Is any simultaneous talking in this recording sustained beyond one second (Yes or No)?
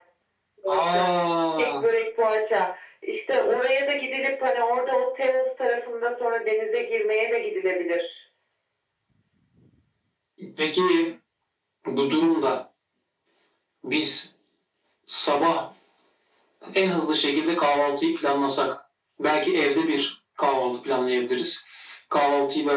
No